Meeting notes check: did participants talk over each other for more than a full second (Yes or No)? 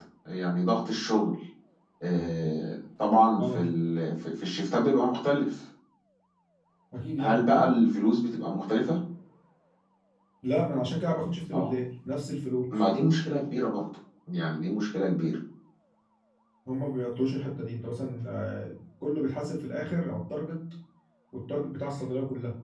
No